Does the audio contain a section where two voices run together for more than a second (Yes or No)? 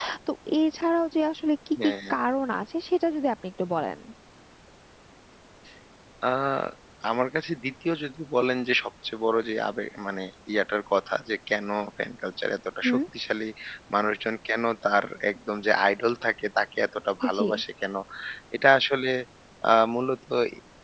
No